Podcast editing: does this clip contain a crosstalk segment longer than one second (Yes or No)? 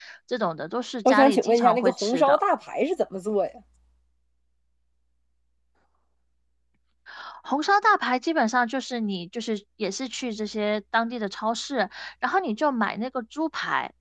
Yes